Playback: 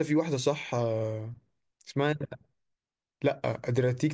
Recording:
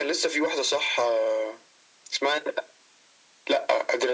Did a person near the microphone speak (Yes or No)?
No